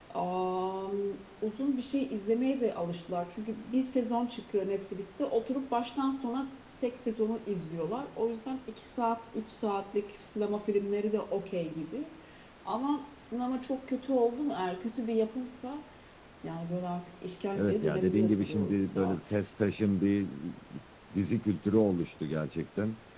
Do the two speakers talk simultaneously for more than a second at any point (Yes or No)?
Yes